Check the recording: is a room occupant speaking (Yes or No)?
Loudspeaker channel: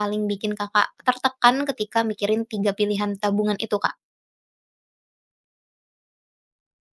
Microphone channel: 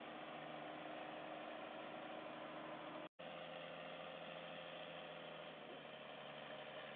No